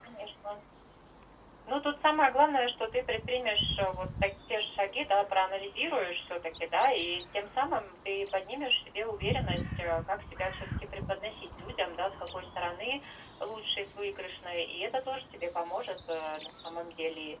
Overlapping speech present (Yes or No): No